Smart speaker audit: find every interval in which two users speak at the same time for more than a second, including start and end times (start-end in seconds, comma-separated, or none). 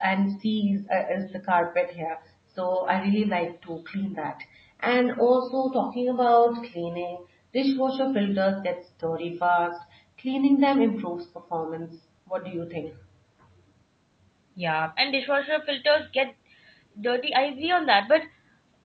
none